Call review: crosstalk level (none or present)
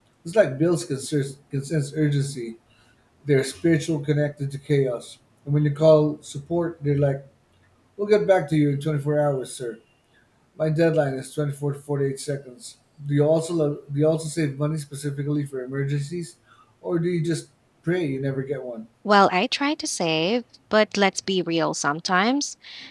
none